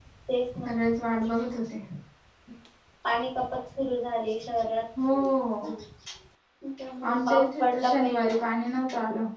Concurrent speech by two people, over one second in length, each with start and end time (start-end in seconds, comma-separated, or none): 7.1-8.3